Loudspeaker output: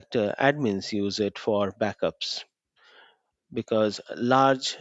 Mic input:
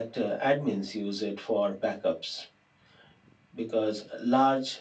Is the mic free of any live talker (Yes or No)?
Yes